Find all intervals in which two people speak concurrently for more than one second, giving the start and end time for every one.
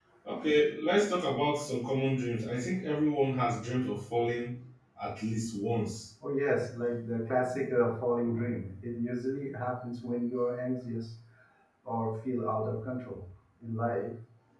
none

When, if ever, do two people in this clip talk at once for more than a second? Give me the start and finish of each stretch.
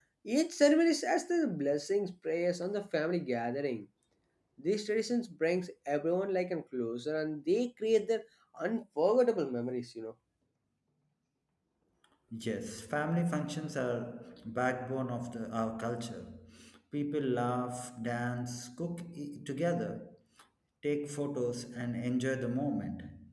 none

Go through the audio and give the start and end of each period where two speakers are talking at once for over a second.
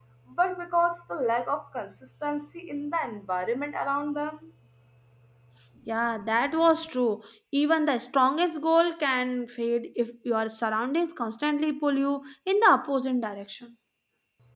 none

